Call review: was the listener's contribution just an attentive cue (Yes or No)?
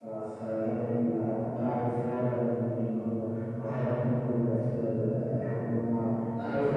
Yes